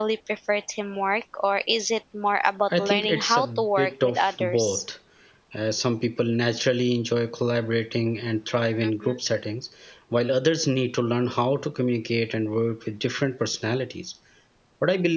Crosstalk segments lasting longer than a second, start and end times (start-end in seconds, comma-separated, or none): 2.8-4.8